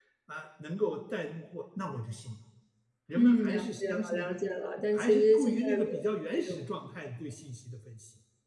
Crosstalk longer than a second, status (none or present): present